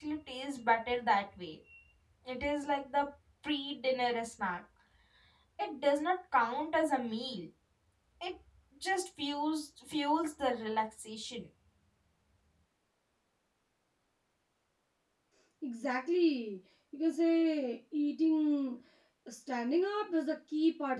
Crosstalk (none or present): none